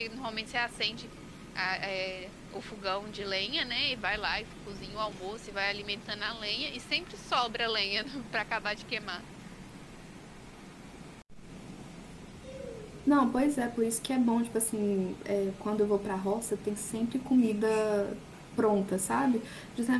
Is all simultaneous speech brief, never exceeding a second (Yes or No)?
Yes